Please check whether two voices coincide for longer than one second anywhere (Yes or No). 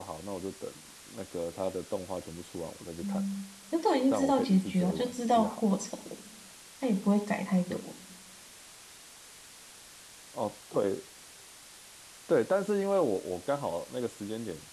Yes